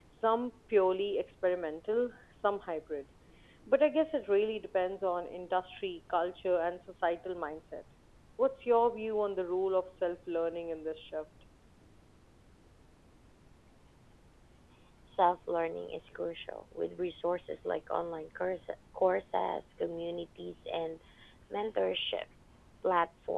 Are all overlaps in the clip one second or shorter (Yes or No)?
Yes